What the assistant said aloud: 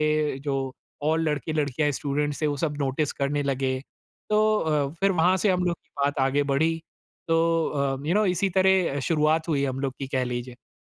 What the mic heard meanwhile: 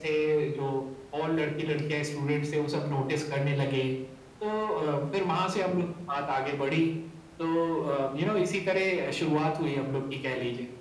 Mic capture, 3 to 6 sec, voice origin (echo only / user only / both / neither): echo only